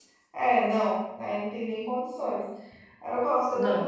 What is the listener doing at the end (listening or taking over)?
listening